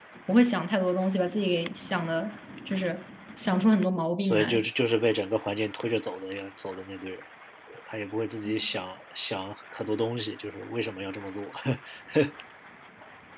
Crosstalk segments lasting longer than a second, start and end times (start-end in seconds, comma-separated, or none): none